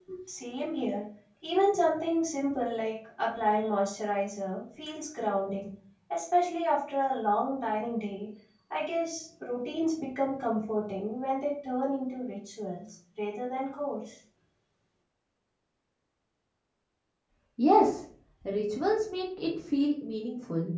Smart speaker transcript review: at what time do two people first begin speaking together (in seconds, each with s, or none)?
none